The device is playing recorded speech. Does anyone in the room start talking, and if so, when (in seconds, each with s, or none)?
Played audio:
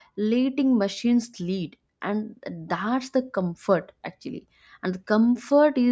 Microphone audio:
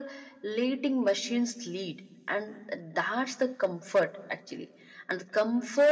none